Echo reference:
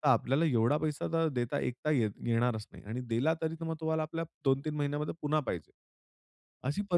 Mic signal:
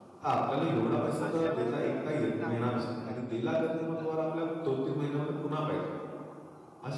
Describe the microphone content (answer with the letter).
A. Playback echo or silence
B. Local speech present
B